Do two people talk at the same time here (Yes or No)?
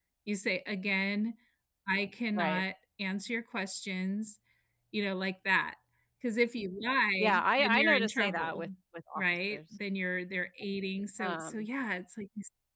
Yes